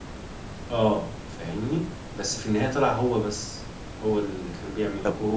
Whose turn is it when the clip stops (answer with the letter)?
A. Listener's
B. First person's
A